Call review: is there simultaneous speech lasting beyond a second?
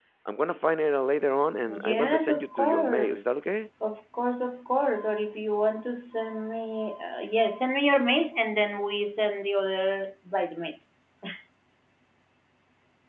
Yes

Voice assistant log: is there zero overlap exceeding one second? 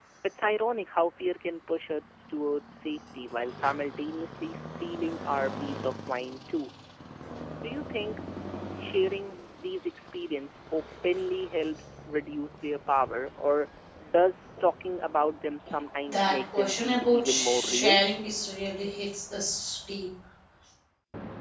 No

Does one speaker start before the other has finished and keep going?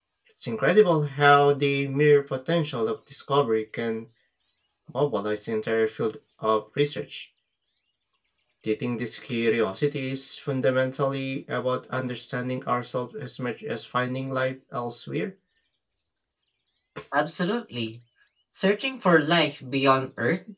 No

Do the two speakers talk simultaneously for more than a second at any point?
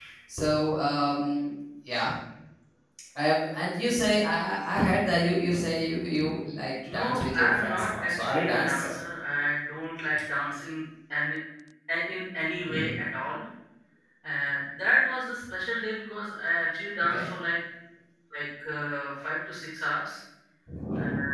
Yes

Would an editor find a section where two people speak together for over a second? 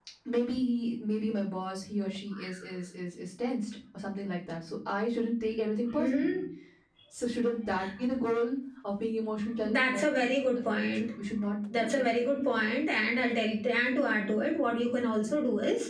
Yes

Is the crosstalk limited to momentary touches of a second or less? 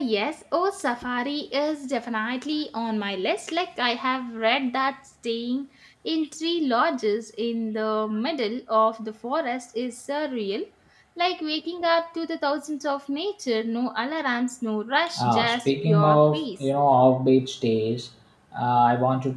No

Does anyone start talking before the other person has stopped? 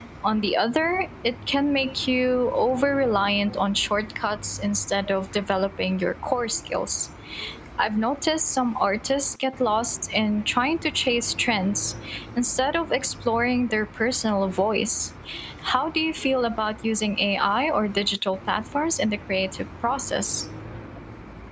No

